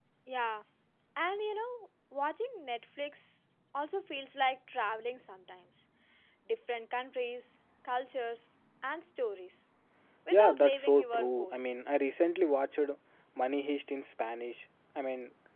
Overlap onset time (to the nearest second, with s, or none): 10 s